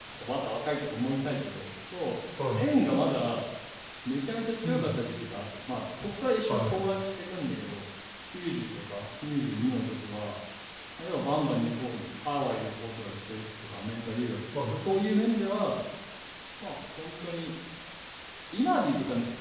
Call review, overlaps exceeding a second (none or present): none